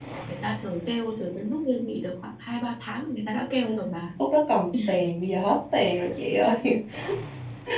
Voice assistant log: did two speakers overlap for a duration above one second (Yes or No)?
No